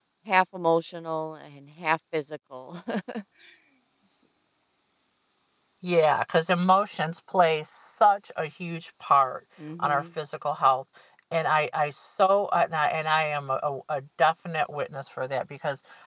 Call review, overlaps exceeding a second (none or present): none